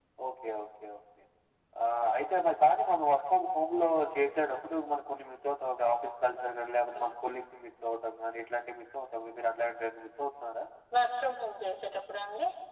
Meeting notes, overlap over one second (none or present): none